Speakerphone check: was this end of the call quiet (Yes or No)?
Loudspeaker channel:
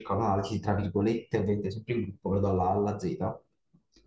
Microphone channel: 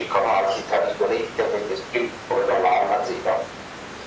Yes